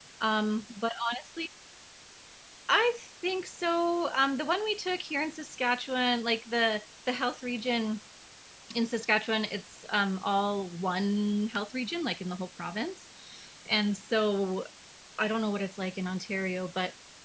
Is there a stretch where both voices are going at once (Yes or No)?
No